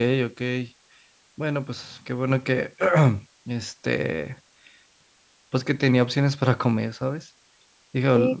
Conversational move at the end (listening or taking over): taking over